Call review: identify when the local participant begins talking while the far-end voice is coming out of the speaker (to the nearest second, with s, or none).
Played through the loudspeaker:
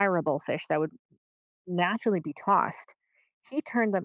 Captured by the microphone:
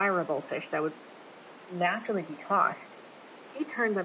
none